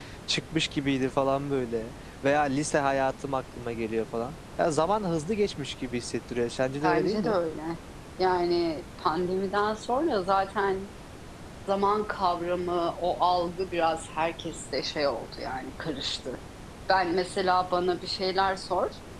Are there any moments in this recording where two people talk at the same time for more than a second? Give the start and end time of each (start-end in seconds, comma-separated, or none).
none